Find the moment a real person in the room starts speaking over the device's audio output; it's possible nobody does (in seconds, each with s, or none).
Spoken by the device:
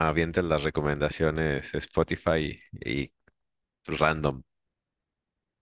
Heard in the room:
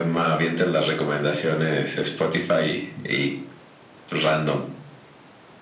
none